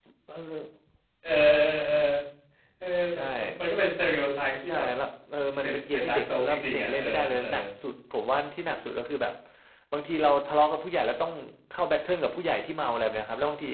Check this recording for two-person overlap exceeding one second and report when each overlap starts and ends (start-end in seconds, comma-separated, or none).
5.6-7.4